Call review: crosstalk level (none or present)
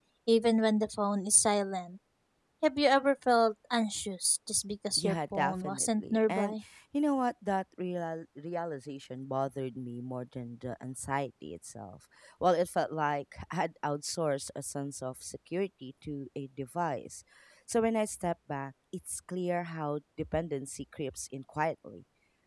present